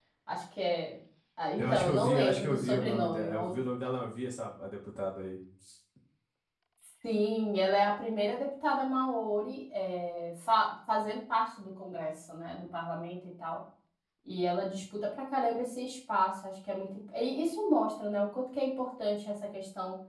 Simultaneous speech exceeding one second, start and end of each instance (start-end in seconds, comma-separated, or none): 1.6-3.6